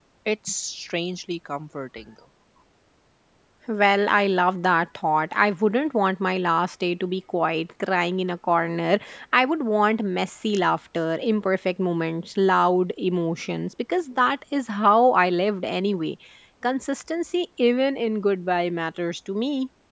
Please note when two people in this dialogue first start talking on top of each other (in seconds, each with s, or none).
none